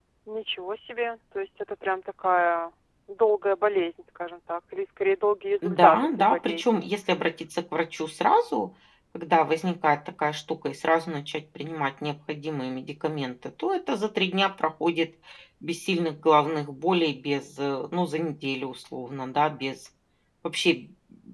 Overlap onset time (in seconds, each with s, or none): 5.6 s